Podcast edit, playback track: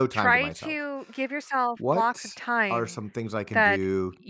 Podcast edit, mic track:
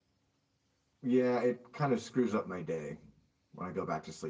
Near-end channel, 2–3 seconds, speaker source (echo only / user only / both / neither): user only